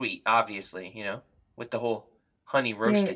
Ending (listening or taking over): taking over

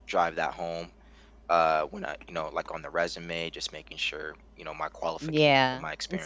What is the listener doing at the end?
taking over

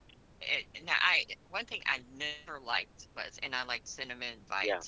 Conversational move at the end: listening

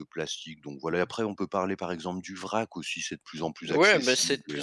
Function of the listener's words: taking over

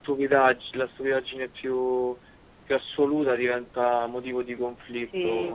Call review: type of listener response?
taking over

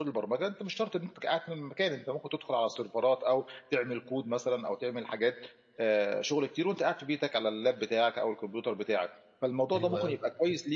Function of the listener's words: listening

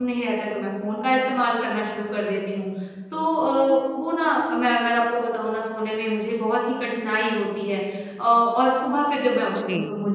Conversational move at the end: listening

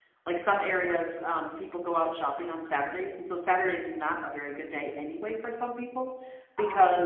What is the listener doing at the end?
listening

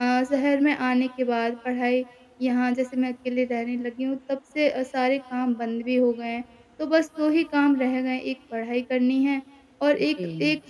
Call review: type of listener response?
listening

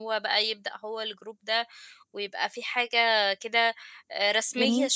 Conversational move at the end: listening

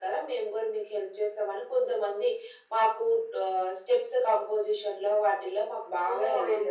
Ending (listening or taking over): taking over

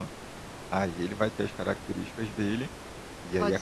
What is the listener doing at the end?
taking over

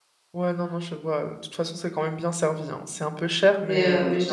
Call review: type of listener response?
taking over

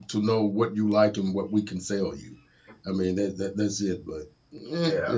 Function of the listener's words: taking over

